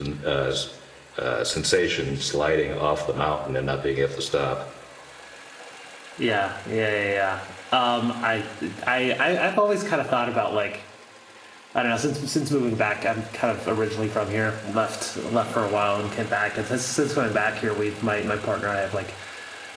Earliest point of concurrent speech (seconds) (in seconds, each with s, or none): none